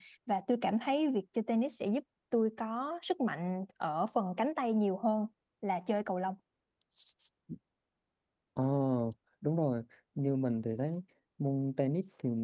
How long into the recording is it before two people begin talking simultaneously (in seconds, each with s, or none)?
none